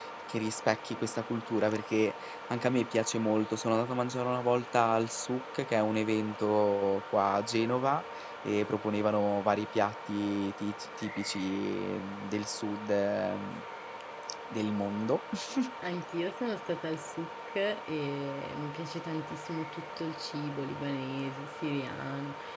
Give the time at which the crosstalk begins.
none

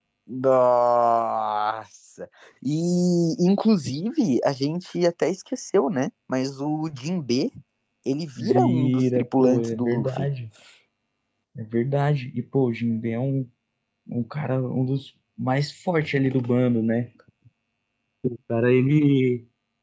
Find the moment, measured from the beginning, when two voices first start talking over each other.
8.4 s

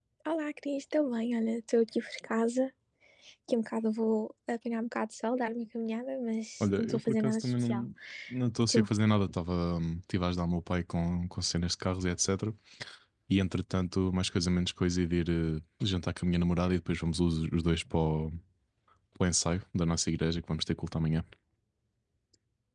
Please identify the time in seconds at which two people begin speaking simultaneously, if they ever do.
6.6 s

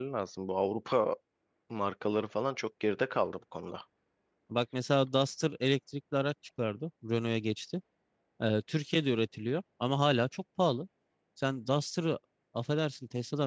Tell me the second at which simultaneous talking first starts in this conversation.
none

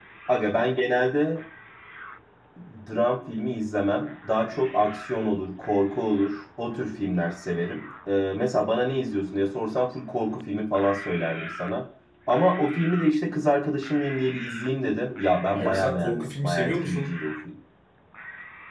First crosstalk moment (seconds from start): 15.5 s

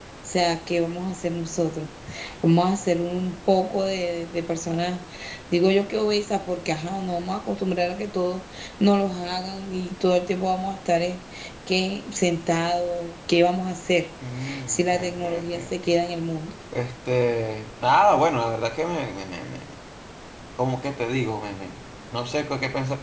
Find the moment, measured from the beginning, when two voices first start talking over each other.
14.7 s

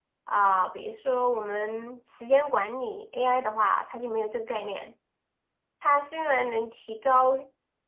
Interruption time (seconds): none

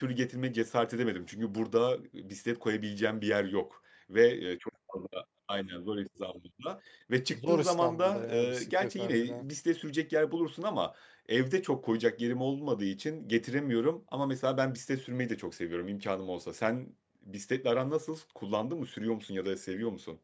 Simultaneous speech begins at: 7.3 s

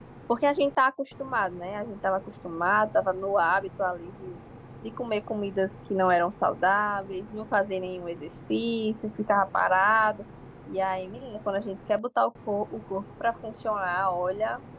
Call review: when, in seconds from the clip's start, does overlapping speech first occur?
none

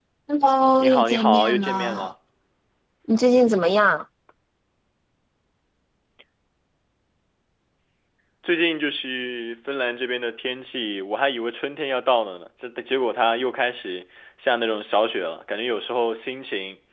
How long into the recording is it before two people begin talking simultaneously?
0.8 s

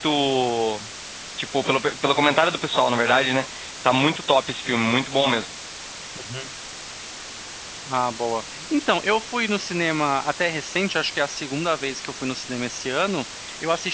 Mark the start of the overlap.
none

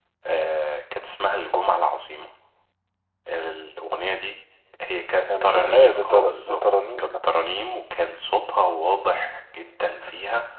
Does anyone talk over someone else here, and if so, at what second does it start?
5.3 s

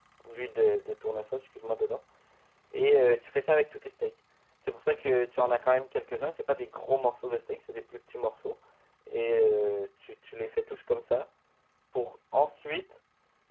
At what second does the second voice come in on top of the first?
none

